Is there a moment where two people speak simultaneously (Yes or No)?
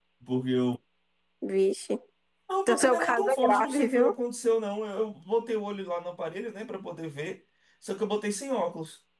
Yes